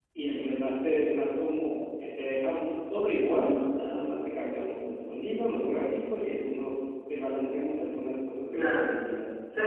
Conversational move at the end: taking over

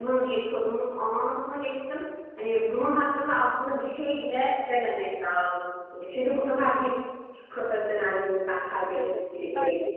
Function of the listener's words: taking over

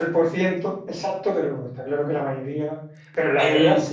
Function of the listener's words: listening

